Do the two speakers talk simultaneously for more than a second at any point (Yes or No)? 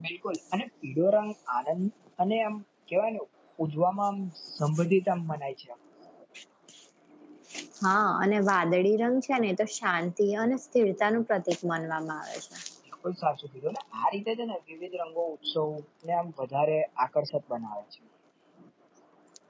No